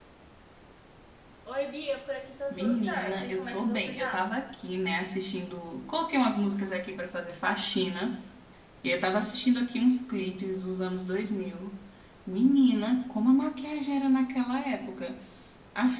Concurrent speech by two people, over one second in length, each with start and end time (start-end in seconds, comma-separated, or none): 2.5-4.3